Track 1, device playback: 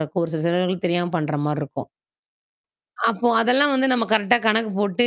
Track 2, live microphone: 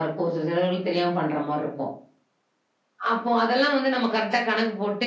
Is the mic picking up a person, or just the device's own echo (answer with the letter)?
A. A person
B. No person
B